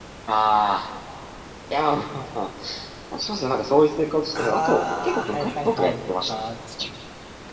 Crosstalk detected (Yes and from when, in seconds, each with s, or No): Yes, from 4.4 s